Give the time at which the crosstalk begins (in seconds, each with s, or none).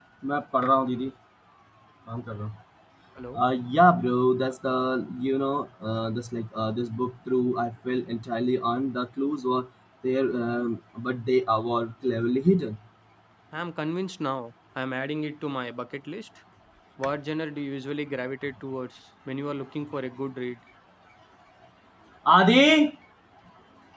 none